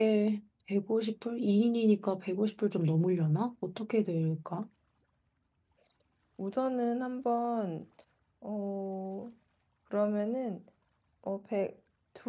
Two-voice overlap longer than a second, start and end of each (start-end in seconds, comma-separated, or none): none